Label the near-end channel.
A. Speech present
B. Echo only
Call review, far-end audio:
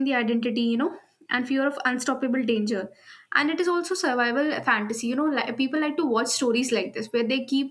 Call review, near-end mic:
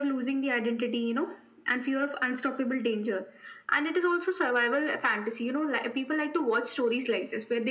B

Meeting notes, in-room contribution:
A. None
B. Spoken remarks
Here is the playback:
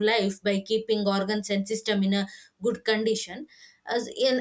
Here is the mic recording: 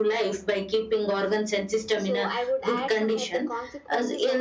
B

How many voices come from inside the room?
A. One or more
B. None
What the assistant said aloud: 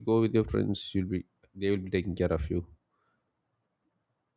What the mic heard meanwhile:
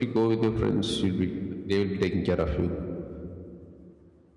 B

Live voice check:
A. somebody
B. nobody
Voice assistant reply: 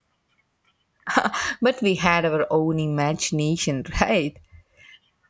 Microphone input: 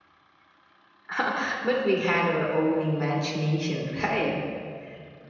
B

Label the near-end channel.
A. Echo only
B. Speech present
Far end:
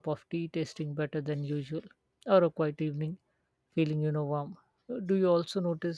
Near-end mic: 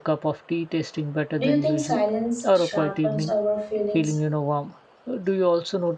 B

